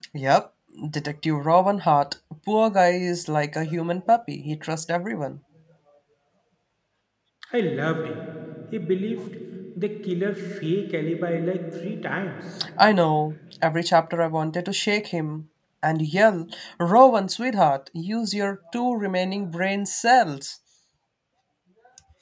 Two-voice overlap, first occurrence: none

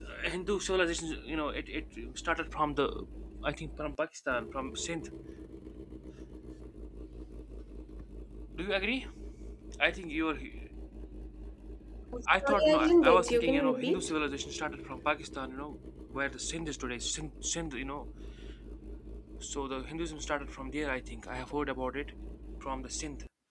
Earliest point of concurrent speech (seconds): 12 s

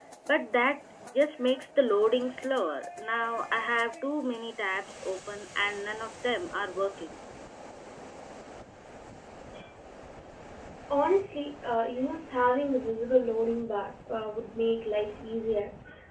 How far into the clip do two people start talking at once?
none

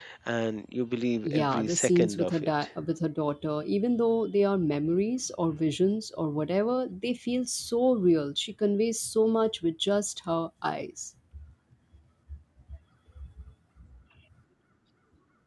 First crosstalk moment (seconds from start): 1 s

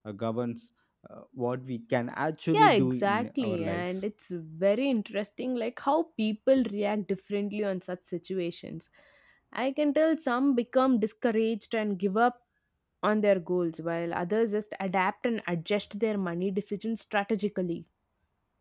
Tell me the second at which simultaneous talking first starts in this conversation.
3 s

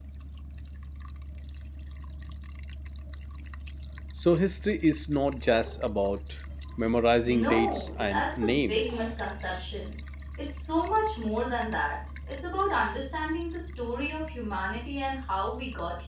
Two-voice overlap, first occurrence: 7 s

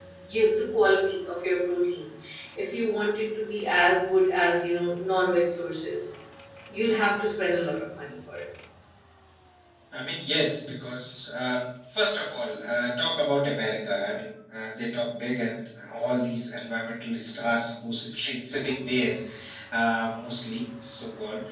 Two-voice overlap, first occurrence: none

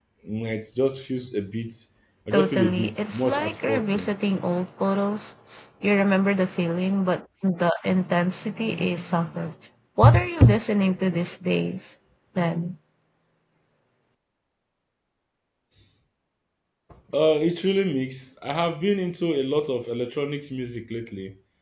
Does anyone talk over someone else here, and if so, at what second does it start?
2 s

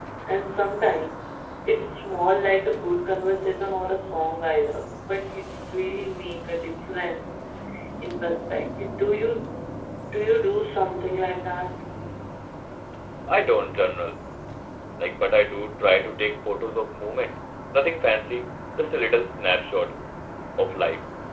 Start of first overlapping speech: none

